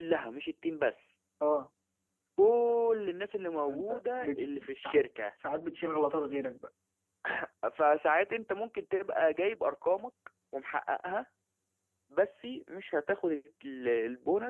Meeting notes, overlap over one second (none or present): present